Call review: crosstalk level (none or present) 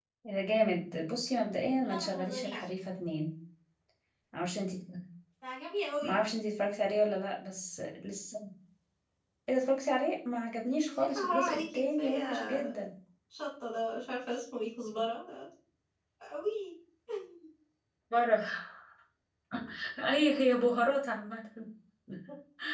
present